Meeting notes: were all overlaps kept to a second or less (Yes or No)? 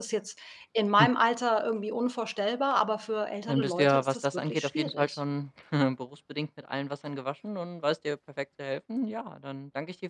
No